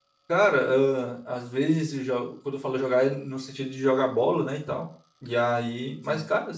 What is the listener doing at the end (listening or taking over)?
listening